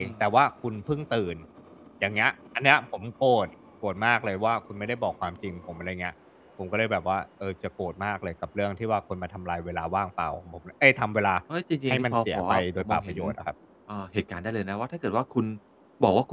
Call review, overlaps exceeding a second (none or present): present